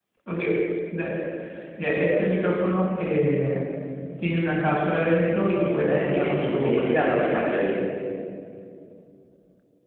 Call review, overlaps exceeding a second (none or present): present